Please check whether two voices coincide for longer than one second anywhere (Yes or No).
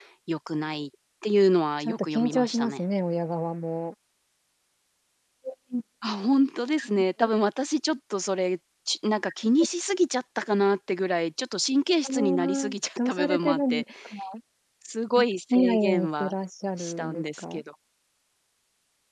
Yes